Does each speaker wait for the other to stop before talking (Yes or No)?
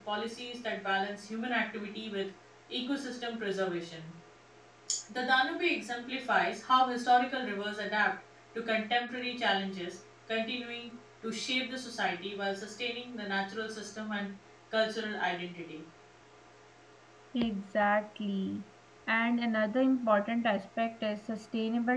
Yes